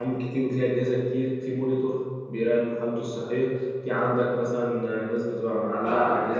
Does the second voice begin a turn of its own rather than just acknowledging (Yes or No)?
Yes